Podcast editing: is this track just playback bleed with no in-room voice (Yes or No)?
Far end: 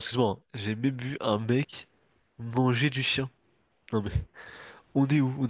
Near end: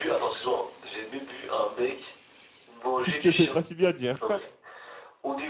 No